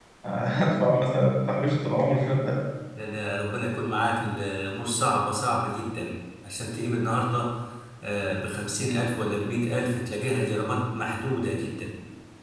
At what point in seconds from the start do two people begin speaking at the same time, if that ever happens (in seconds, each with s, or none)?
none